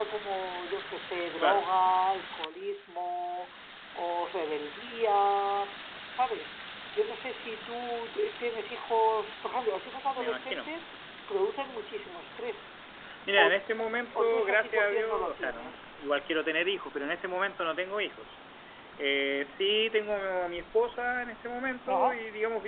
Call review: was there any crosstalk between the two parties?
Yes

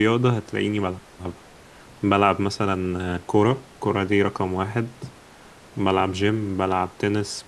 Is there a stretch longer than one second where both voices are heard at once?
No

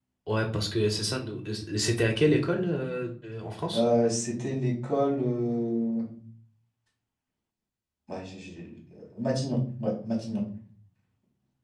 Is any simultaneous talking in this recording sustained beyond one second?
No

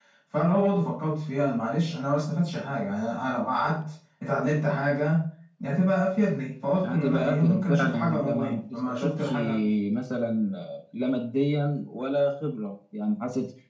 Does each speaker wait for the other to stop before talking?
No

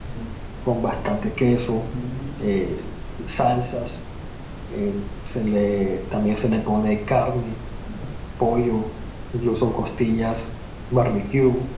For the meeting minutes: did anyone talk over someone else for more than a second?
No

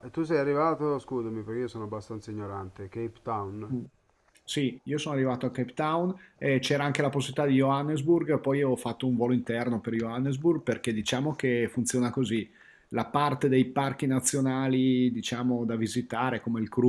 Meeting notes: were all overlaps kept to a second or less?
Yes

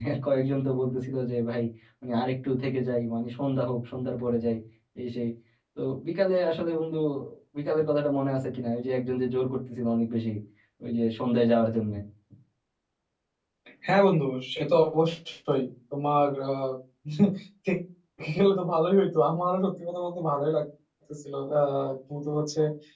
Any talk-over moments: No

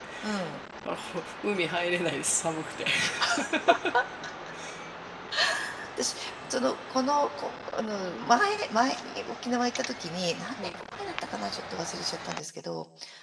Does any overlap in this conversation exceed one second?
No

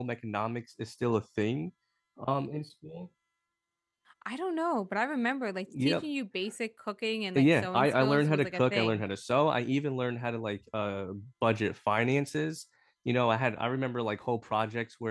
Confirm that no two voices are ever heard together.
No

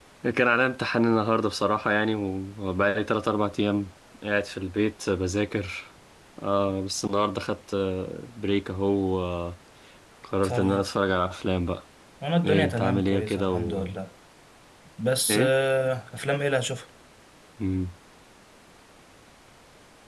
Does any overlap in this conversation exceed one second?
Yes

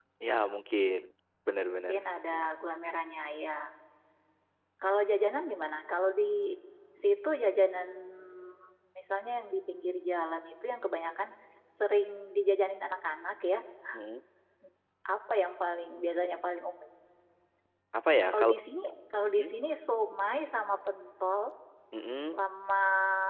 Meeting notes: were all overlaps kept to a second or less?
Yes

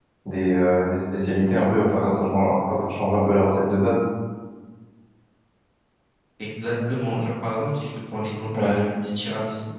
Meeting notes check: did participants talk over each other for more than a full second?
No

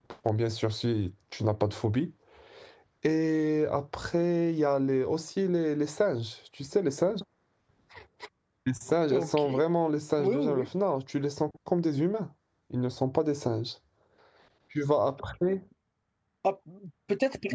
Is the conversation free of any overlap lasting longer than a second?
Yes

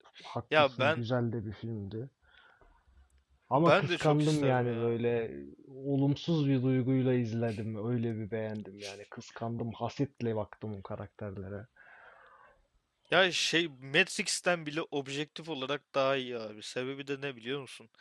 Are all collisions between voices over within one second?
No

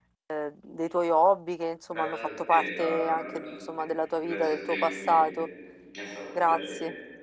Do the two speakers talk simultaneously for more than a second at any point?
Yes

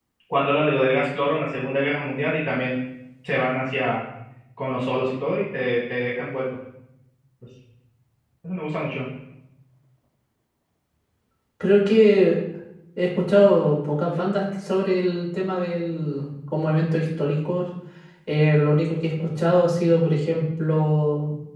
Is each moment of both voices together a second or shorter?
Yes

